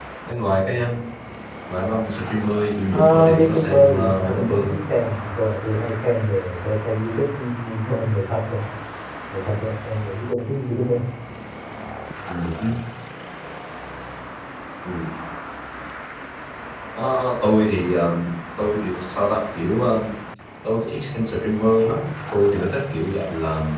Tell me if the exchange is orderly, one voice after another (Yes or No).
No